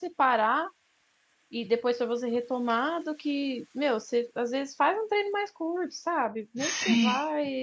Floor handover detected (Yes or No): No